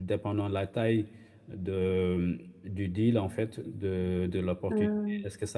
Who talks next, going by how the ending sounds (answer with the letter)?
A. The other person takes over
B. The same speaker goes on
B